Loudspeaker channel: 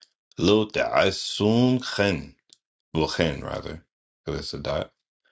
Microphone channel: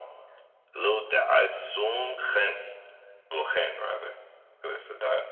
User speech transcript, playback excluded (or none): none